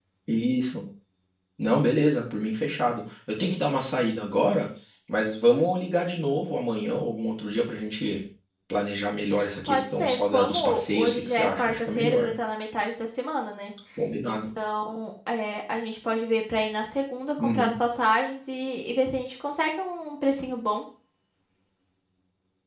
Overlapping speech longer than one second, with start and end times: 9.6-12.3

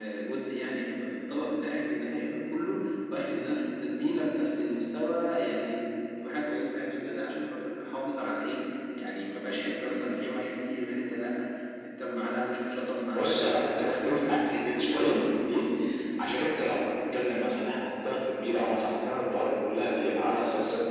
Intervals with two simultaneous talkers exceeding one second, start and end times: 13.1-15.4

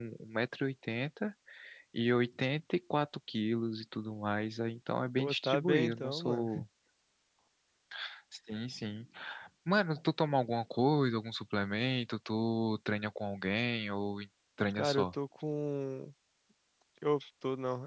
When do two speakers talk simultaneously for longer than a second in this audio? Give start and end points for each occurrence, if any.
5.2-6.5

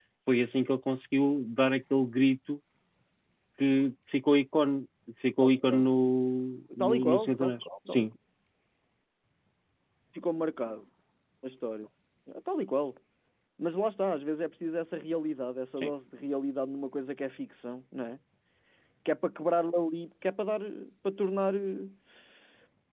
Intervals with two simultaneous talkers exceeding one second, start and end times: 6.8-8.0

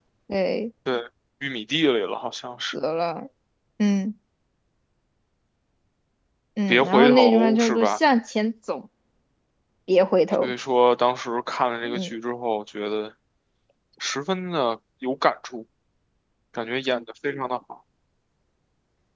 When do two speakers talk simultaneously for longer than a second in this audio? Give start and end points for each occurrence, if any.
6.7-8.0

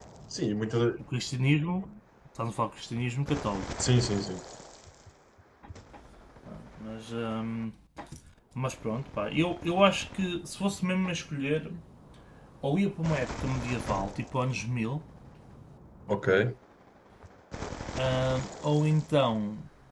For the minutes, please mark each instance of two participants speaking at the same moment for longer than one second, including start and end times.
none

